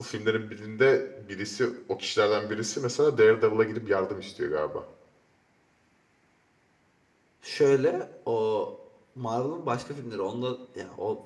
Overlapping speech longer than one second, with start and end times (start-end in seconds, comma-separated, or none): none